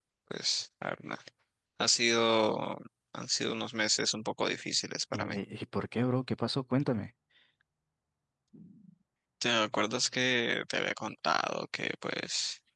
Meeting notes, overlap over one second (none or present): none